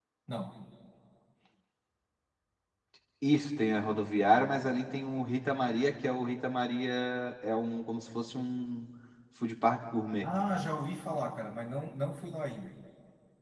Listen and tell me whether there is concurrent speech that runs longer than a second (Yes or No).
No